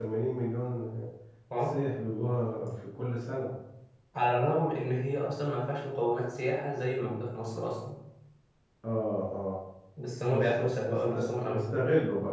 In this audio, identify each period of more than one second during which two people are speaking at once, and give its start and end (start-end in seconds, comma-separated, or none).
10.3-11.7